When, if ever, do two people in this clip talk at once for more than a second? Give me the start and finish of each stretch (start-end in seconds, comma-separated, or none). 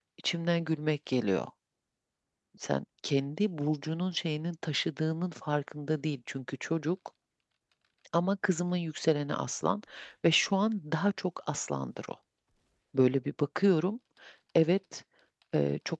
none